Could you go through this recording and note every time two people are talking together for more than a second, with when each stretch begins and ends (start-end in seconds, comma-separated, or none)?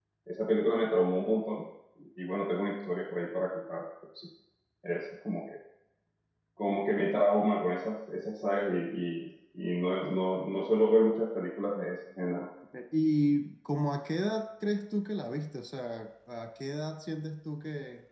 none